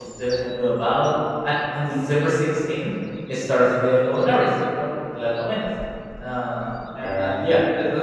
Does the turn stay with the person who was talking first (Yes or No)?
Yes